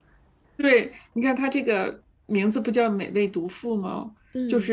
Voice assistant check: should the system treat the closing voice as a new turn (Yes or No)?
No